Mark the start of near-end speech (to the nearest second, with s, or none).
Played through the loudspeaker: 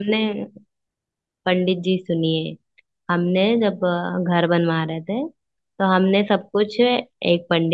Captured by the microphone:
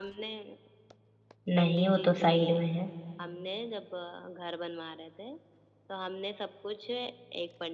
2 s